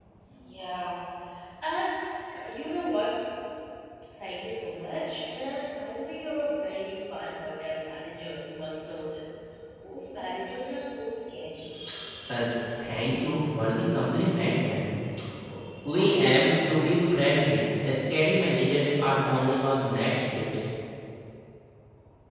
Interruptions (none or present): none